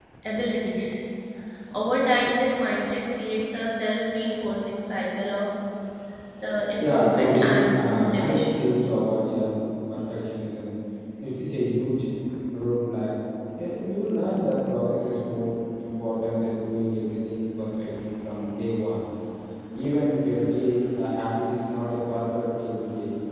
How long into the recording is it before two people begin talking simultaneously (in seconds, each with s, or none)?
6.8 s